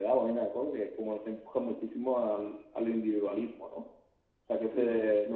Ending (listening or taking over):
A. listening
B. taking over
B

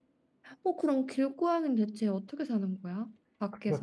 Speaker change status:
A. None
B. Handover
B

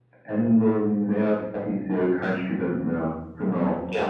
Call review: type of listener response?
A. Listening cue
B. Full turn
A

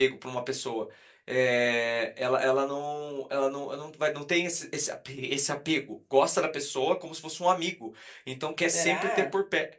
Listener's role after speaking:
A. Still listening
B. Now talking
A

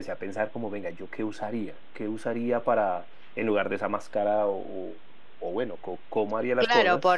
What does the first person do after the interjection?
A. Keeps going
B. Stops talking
B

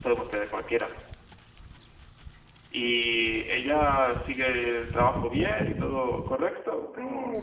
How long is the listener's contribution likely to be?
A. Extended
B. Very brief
A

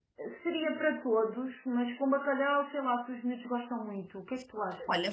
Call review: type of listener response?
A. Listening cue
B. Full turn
B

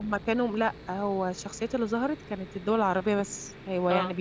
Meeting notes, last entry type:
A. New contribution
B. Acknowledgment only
B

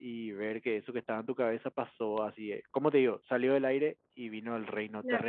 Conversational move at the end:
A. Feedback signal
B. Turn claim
B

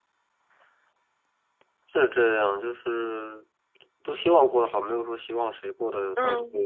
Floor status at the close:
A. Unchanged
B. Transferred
B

